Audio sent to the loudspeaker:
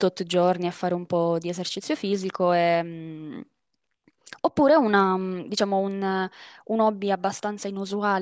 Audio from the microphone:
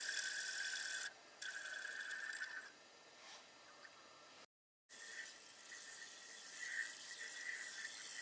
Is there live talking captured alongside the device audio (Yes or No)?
No